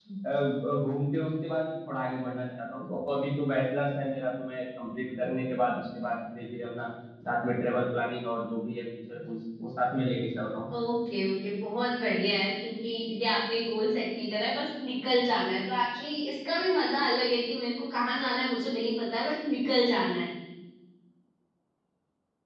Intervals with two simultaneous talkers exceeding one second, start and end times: none

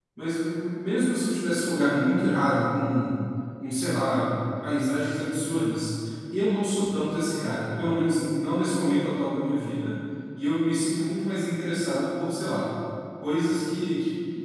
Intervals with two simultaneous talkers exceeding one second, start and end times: none

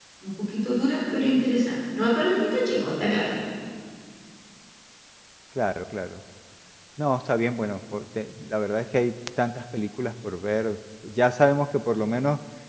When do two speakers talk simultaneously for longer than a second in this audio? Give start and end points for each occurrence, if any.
none

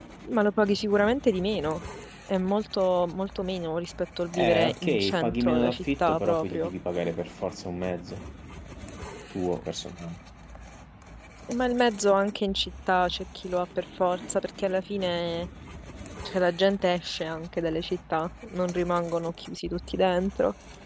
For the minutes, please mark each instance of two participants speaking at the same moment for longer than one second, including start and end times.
4.4-6.7

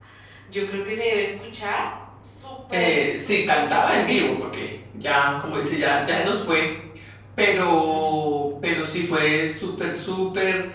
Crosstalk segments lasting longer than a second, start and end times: 2.7-4.3

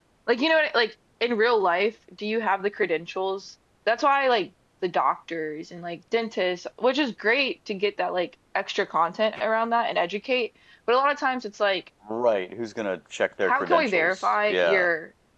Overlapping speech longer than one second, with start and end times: 13.4-14.9

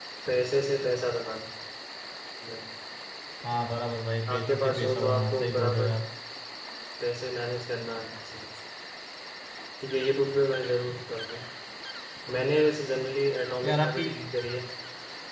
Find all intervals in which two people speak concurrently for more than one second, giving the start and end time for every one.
4.3-5.9

